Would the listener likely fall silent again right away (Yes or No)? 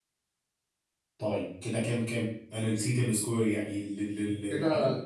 No